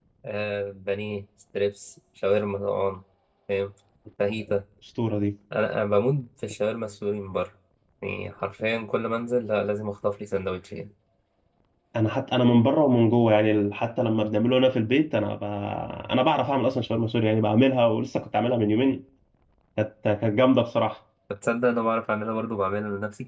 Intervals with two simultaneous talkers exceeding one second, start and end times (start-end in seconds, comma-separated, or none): none